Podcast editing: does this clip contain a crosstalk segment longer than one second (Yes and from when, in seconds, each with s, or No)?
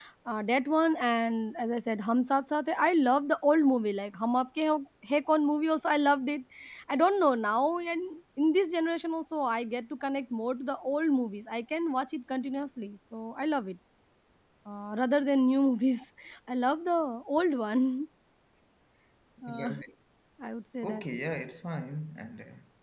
No